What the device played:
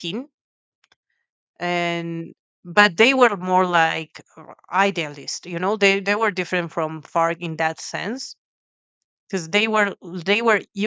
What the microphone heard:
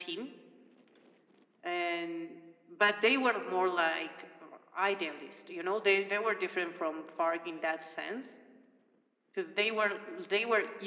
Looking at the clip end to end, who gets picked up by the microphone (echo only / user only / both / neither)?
echo only